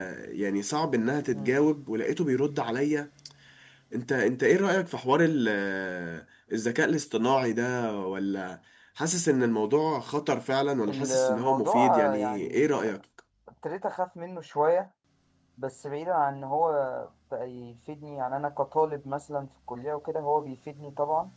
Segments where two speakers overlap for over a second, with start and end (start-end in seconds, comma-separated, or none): 10.9-12.8